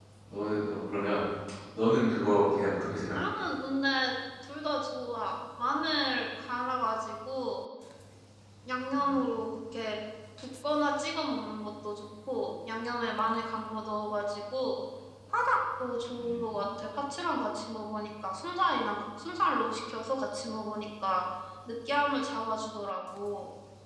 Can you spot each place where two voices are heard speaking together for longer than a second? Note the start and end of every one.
none

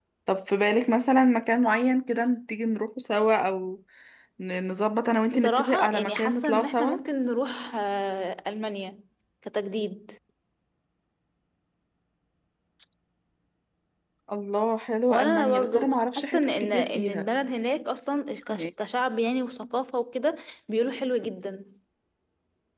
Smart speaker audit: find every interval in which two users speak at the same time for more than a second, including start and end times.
5.3-7.0, 15.1-17.3

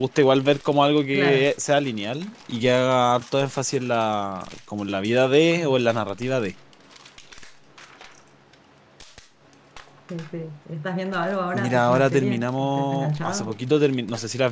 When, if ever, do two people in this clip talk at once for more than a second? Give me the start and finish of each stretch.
11.5-13.6

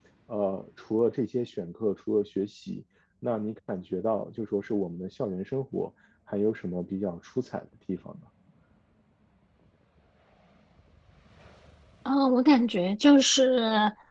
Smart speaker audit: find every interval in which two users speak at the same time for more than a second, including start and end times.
none

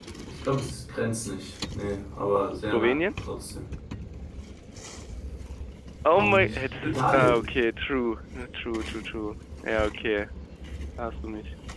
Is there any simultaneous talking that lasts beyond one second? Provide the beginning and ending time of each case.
6.1-7.4

